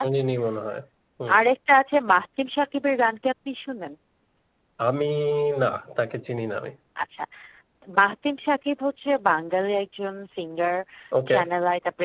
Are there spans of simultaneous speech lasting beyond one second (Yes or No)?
No